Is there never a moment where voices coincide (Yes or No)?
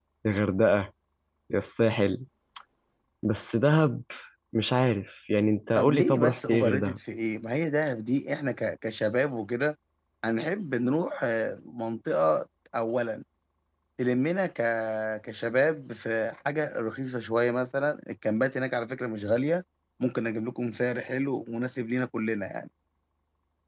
No